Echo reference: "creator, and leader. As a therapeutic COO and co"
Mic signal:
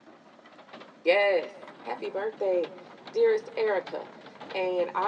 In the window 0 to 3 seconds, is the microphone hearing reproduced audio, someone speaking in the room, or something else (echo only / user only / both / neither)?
user only